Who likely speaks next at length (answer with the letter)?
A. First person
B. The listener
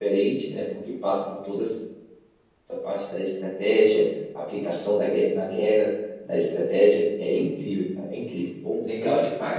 B